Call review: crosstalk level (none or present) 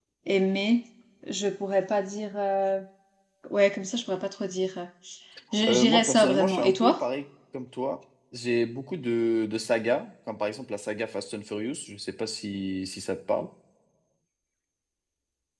present